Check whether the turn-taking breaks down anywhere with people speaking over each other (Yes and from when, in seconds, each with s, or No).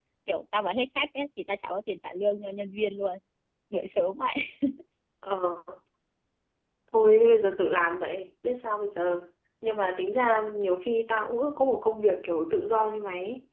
No